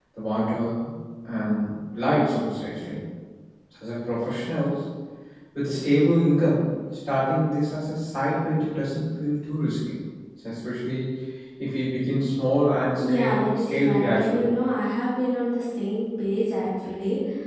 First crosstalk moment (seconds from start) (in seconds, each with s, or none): 13.0 s